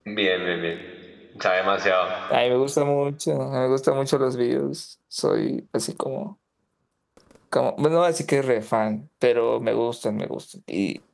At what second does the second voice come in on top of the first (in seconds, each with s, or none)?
none